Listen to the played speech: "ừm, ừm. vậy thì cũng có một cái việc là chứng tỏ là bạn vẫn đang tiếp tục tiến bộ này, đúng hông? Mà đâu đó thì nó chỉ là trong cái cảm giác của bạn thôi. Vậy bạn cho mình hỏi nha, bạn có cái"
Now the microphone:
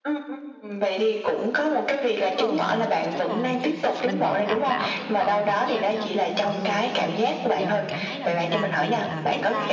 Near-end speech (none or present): present